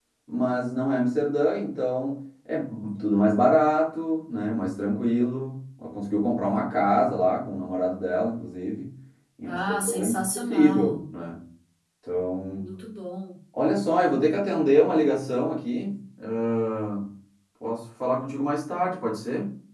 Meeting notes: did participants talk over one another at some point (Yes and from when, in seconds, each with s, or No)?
Yes, from 9.4 s